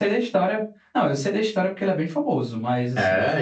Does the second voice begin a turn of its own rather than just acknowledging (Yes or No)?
Yes